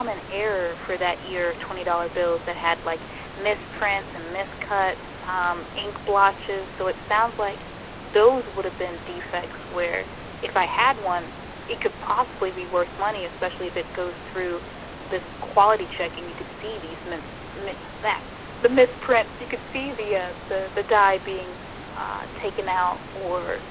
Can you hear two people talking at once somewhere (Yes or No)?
No